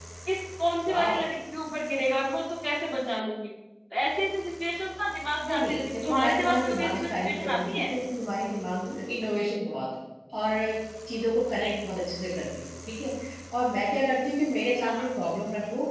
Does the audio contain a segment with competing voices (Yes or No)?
Yes